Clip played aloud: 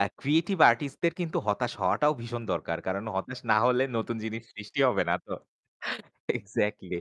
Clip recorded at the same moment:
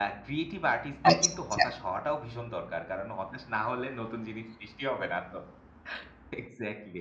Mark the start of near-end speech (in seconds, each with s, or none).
1.1 s